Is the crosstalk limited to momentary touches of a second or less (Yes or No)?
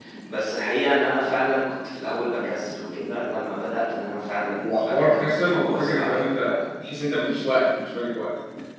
No